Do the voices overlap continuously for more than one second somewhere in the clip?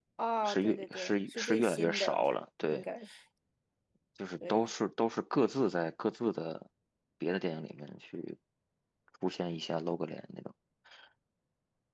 Yes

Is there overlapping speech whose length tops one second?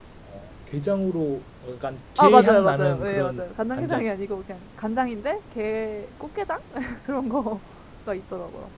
Yes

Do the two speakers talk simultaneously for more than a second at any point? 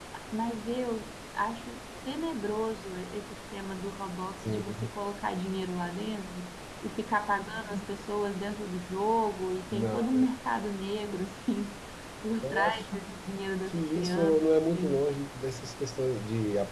Yes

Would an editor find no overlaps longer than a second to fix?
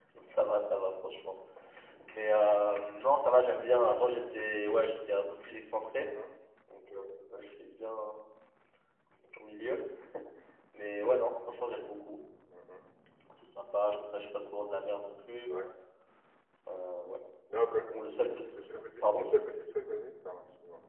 Yes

